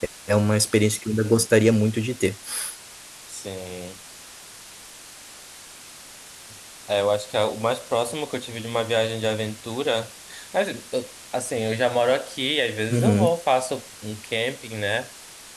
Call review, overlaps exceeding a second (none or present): none